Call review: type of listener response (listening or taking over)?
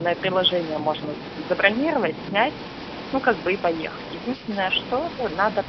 listening